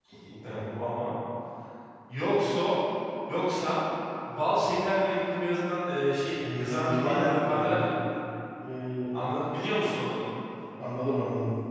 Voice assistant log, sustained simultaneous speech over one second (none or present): present